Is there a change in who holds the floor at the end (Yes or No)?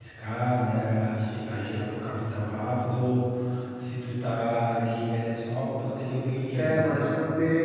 Yes